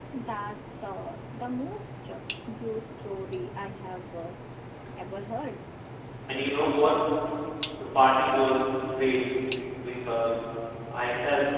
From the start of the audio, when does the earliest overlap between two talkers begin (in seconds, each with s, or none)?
none